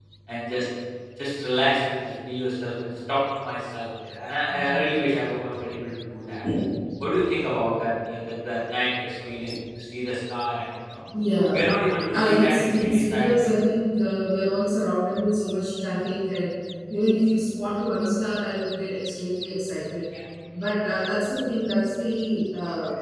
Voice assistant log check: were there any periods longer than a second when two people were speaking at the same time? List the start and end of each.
12.1-13.4

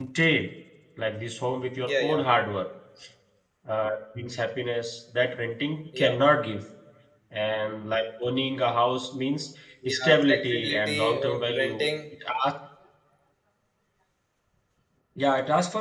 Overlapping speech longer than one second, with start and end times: 9.9-11.8

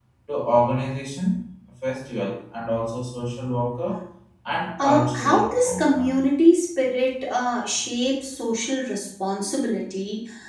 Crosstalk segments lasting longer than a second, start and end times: 4.8-6.2

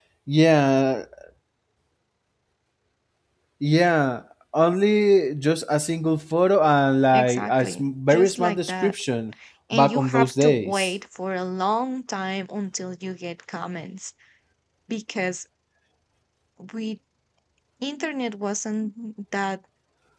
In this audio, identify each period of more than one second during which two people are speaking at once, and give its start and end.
7.1-8.9, 9.7-10.9

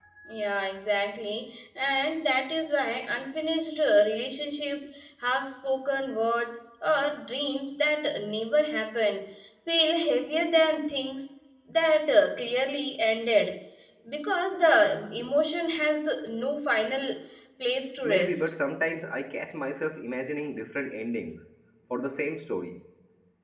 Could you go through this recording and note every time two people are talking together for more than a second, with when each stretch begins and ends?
none

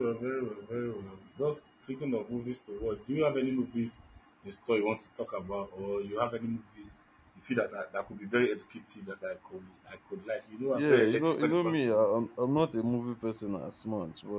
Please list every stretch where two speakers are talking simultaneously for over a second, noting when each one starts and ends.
10.7-12.1

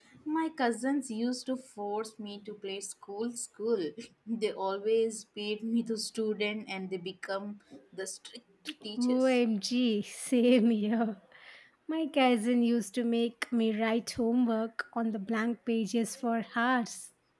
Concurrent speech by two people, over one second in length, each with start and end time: none

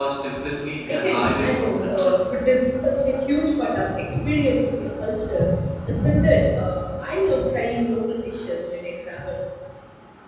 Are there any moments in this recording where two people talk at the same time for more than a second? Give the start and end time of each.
0.9-2.2

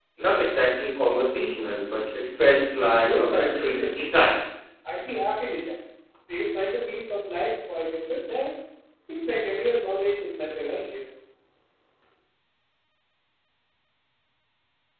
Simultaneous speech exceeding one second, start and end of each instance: 3.1-4.3

